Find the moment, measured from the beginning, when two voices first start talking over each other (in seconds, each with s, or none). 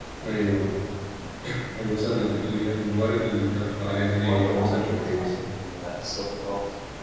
4.2 s